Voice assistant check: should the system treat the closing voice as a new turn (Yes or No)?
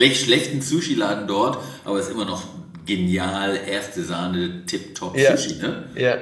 Yes